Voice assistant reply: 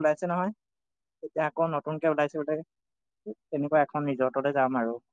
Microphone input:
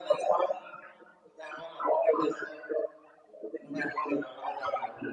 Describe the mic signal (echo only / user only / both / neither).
echo only